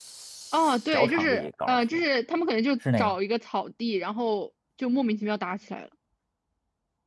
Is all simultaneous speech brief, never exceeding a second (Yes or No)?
No